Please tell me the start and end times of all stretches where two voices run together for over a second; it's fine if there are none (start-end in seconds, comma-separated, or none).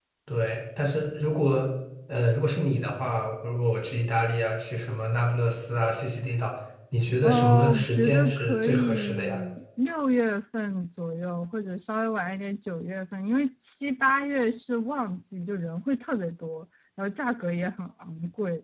7.2-9.4